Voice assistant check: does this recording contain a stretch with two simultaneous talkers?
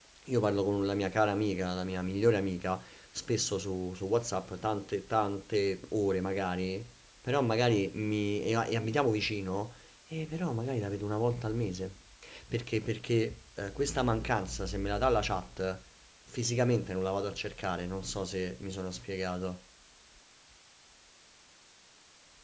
No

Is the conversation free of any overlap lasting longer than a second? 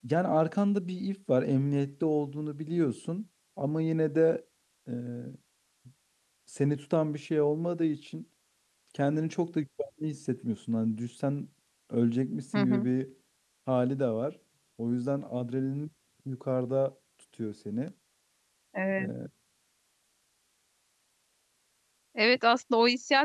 Yes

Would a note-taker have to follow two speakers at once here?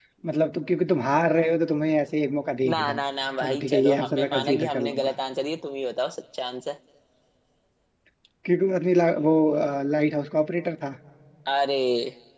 Yes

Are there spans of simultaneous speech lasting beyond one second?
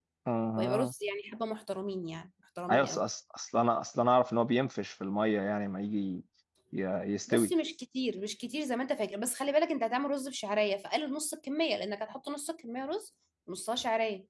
No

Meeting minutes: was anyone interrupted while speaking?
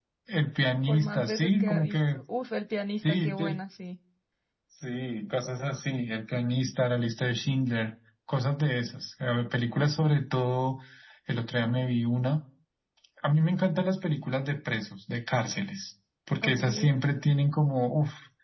Yes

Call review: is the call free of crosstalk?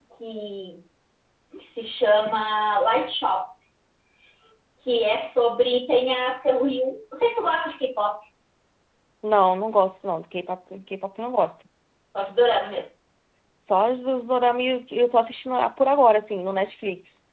Yes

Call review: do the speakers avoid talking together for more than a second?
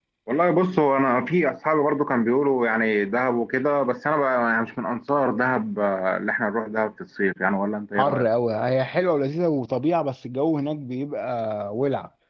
Yes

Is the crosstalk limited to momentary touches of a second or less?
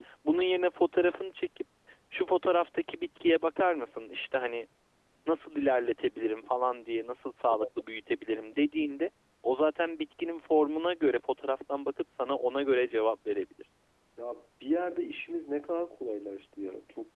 Yes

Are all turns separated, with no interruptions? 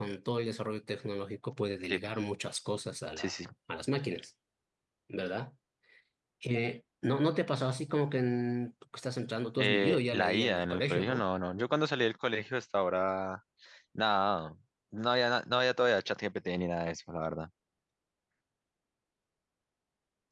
No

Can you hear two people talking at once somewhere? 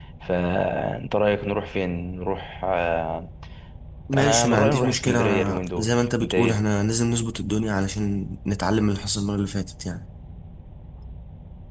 Yes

